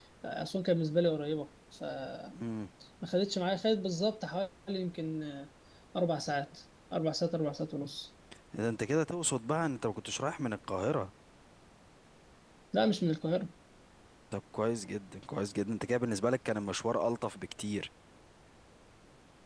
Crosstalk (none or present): none